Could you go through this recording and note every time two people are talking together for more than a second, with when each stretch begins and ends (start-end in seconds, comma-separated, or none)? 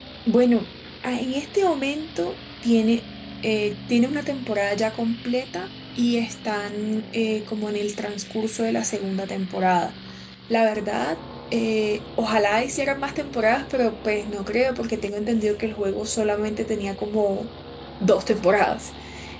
none